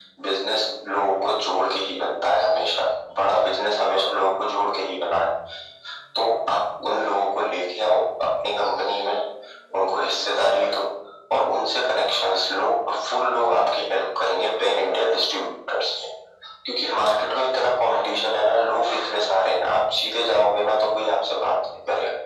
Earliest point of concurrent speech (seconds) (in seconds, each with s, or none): none